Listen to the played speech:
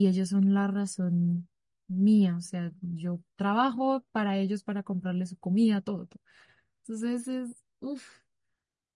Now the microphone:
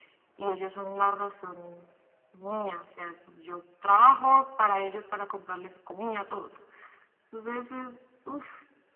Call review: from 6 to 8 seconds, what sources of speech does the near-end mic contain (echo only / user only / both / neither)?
echo only